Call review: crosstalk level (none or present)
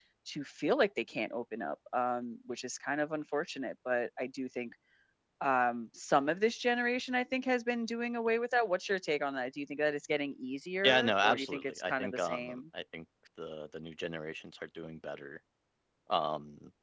present